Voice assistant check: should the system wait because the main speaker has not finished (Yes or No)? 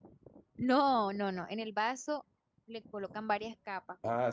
No